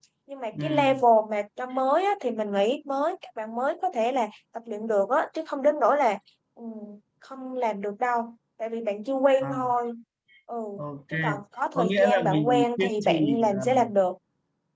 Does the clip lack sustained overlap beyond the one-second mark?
No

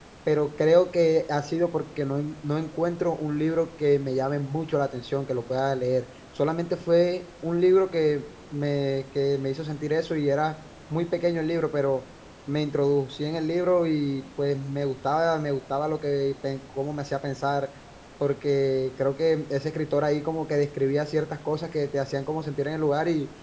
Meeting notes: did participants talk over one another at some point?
No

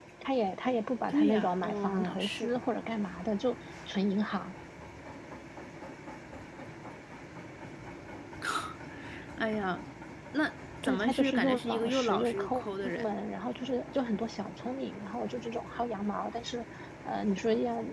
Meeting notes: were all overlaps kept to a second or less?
No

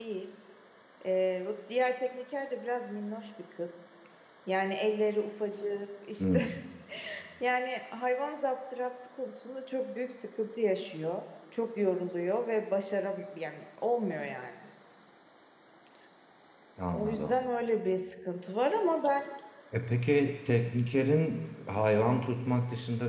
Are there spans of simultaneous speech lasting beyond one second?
No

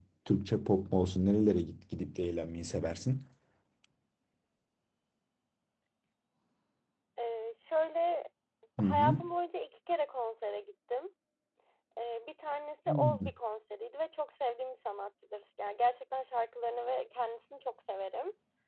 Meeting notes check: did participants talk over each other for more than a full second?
No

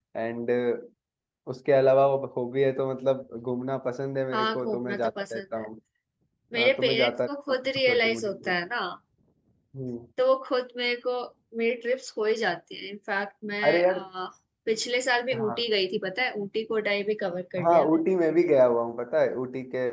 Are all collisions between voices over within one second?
No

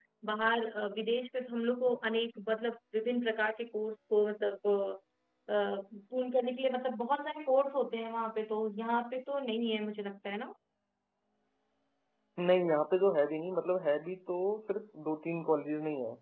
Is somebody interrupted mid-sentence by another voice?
No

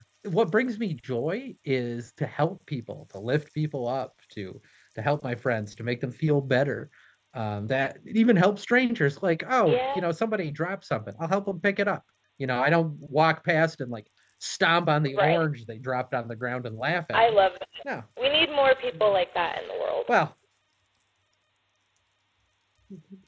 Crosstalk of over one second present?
No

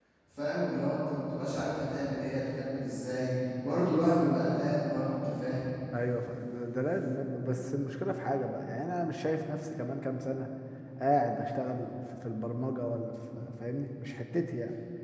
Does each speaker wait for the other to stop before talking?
Yes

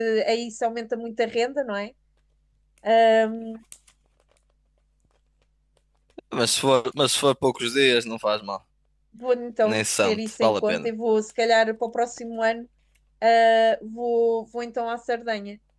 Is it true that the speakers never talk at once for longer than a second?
No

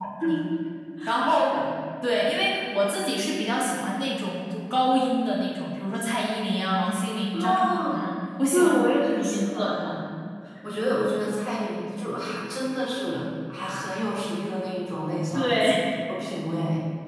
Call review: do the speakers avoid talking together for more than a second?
No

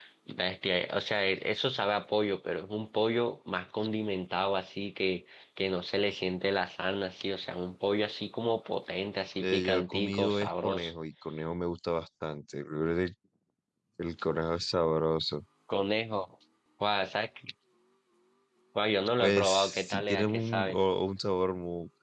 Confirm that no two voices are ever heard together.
No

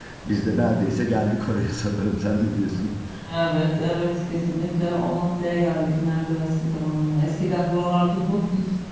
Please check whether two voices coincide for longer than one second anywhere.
No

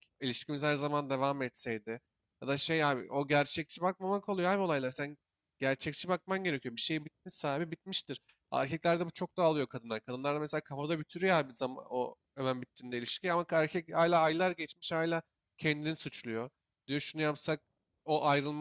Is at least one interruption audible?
No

